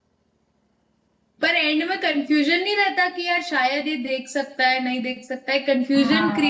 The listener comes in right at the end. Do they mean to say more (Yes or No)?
Yes